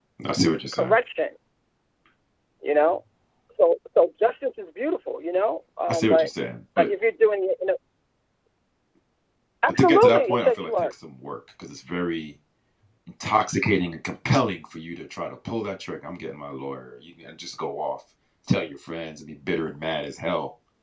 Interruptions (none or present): present